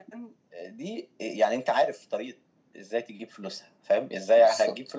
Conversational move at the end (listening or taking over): listening